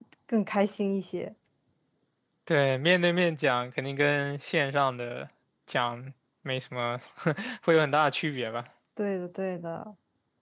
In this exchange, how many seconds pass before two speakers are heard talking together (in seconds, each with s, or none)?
none